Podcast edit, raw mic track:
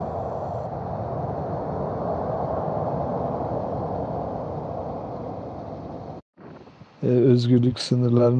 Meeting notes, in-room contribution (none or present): present